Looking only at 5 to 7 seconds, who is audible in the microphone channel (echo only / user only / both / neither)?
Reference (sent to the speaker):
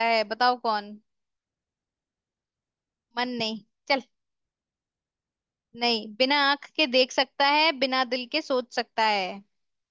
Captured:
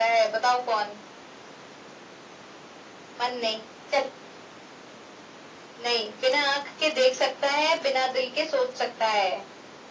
echo only